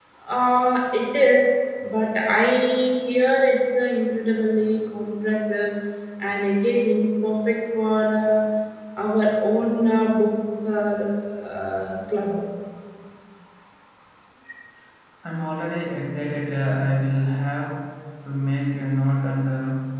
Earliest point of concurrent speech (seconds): none

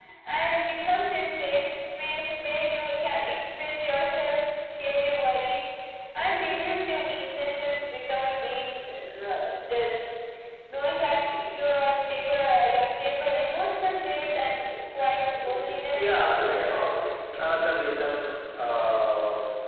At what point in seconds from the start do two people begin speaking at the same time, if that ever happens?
15.9 s

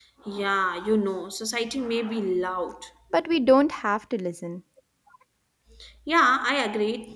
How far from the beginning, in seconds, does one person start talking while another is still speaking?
none

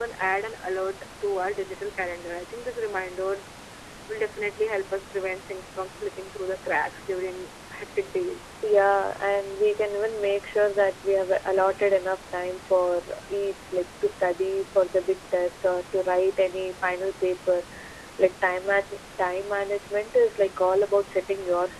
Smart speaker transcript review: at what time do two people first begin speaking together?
none

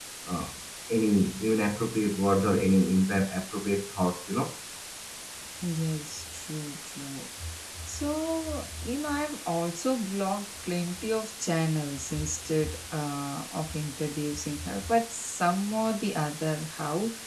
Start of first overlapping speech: none

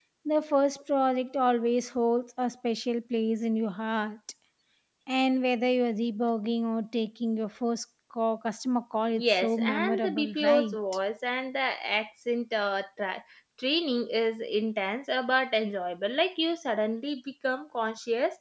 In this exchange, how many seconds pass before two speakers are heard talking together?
9.1 s

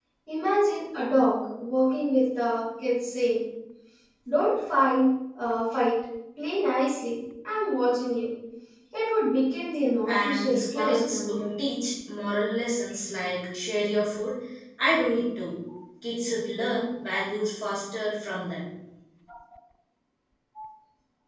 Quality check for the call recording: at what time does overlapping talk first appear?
10.1 s

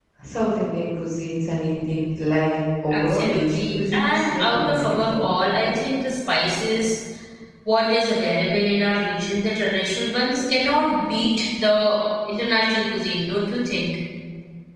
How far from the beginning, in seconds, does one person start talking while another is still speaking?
2.9 s

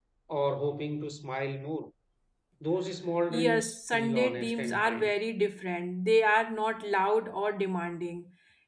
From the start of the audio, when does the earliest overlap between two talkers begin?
3.3 s

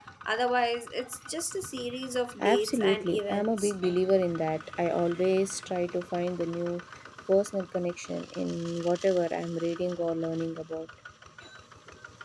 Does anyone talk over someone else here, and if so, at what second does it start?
2.4 s

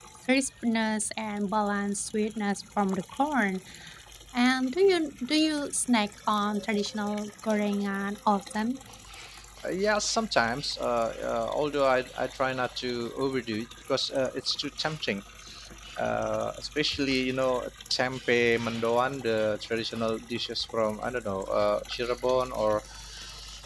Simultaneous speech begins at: none

